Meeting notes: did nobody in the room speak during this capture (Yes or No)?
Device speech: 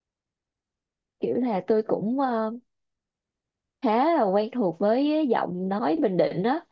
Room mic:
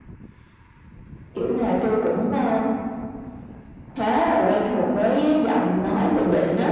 Yes